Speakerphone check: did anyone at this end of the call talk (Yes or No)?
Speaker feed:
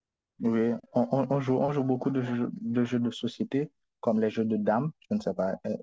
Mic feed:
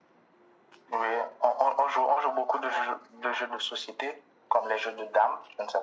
No